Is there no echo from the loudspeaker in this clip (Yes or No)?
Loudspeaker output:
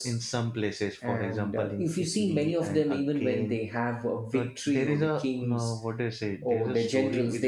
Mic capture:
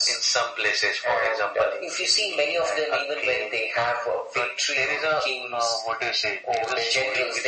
No